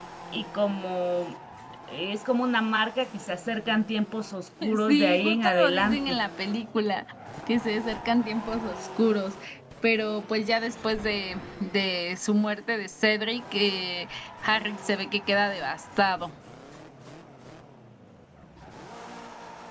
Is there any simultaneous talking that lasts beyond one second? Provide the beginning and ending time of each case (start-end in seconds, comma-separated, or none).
4.9-6.2